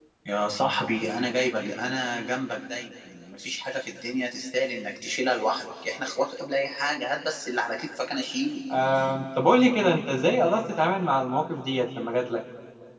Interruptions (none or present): none